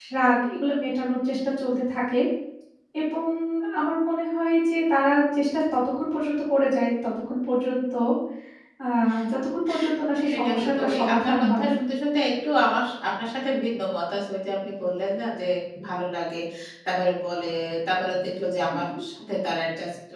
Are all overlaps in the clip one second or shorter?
No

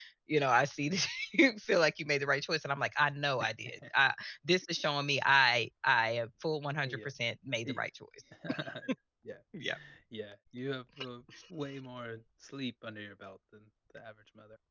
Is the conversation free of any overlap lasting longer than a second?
Yes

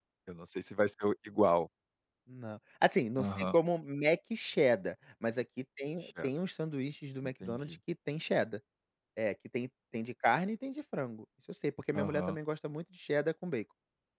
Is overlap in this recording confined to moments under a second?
Yes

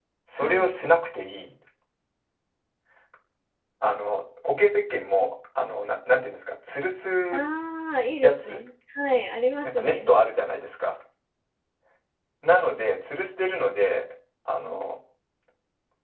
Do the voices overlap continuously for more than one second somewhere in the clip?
No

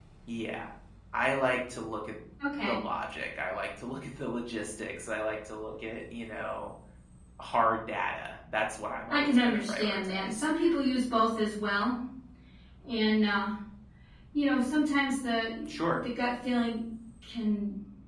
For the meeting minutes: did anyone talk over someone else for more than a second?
Yes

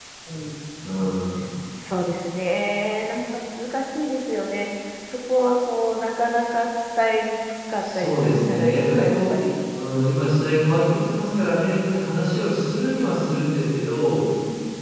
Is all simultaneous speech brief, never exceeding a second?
No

